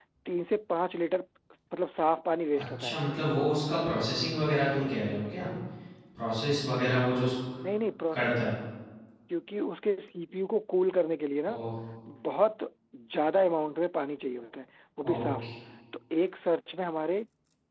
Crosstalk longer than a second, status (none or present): none